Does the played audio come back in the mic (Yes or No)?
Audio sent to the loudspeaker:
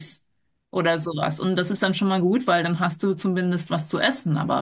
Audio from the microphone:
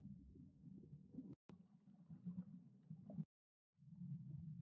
No